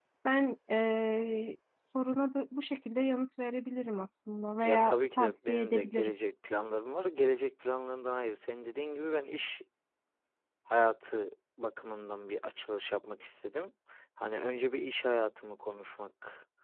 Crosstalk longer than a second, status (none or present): present